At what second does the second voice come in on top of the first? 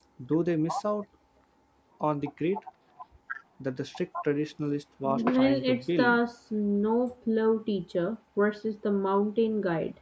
5.0 s

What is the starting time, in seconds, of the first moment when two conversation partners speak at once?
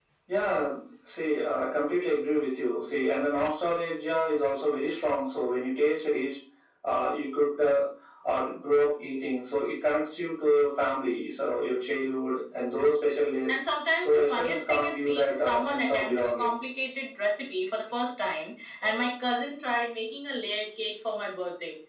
14.0 s

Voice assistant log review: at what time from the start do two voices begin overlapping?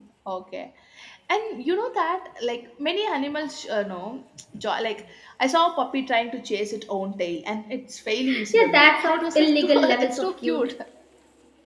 8.5 s

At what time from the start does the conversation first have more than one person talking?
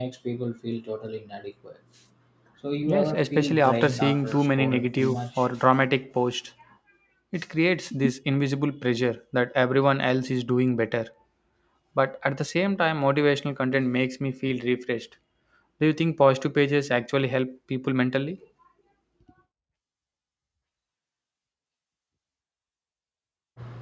2.9 s

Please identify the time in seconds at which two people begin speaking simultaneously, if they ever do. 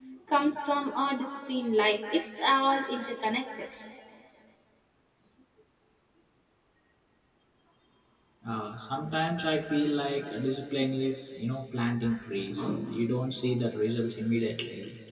none

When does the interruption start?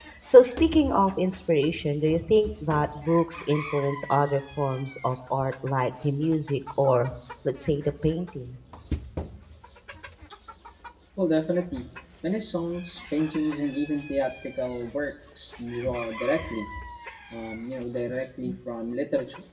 none

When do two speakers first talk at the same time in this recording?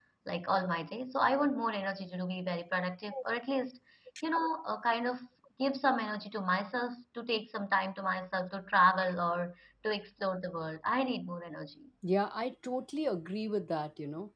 none

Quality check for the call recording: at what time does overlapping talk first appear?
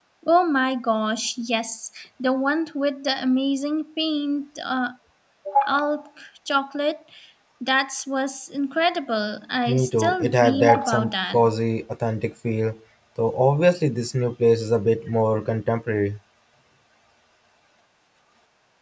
9.7 s

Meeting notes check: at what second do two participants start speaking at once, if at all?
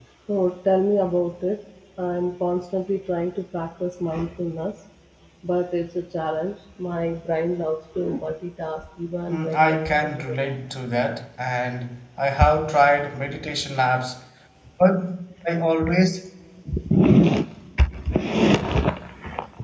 9.3 s

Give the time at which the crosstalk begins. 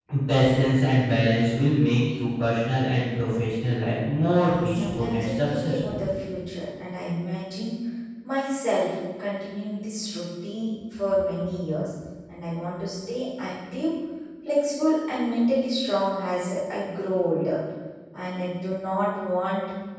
4.3 s

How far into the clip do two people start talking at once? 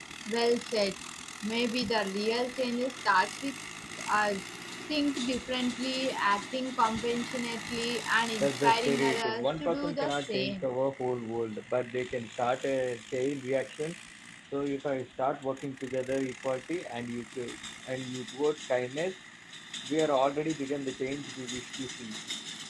8.4 s

